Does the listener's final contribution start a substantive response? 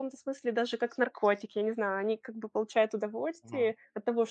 No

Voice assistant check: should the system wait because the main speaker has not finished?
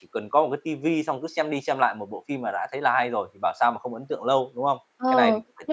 No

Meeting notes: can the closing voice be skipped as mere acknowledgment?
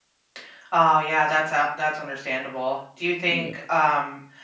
Yes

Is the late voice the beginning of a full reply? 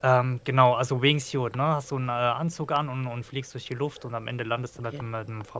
No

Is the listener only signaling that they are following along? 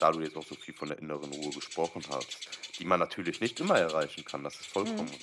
Yes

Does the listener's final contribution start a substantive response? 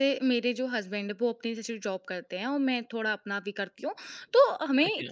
No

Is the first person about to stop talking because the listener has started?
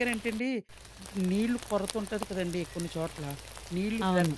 No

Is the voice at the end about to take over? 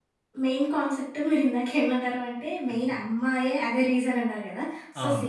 No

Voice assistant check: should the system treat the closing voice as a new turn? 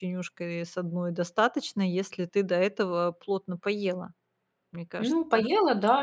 Yes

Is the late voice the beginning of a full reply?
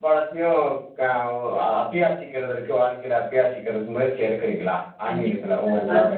Yes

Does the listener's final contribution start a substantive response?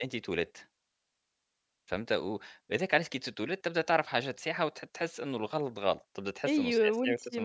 Yes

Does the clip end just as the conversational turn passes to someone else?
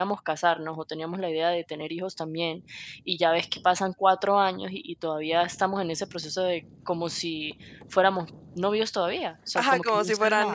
Yes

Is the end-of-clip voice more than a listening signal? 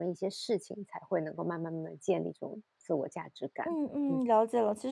Yes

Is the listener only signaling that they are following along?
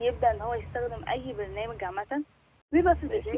Yes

